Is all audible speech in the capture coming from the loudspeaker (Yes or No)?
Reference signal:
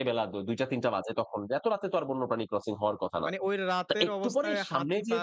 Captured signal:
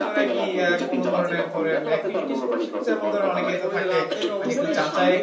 No